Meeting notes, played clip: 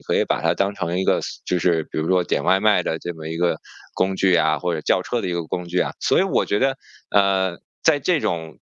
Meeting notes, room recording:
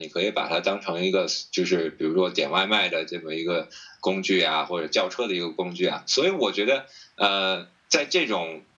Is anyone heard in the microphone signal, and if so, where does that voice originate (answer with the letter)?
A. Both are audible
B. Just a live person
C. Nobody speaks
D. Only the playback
D